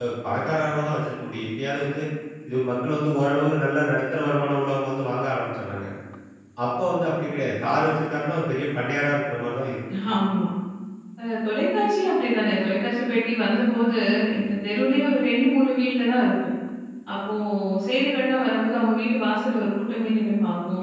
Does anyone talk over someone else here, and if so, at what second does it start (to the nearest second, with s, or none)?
none